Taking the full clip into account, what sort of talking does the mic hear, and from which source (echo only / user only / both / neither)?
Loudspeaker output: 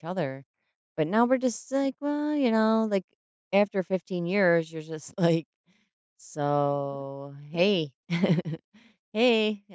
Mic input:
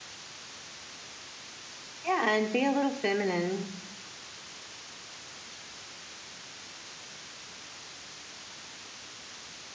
user only